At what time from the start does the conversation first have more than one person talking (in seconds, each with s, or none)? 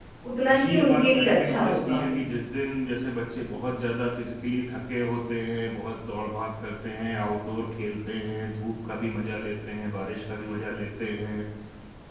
0.6 s